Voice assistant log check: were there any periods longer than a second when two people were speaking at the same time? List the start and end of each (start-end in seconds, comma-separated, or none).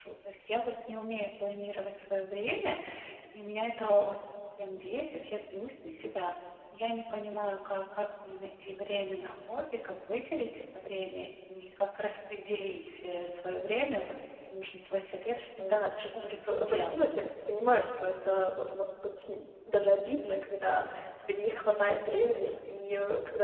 15.6-17.0